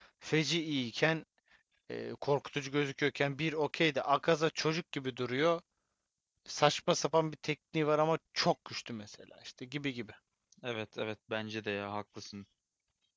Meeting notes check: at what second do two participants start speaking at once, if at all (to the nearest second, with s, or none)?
none